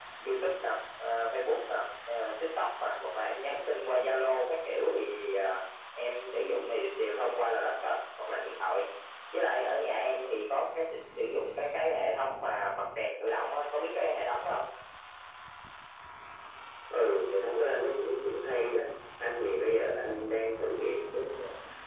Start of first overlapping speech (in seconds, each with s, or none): none